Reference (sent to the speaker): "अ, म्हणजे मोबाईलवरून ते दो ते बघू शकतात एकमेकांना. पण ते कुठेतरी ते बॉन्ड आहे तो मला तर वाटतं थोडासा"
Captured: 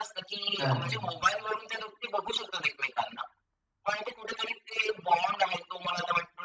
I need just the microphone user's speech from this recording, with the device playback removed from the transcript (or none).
हां.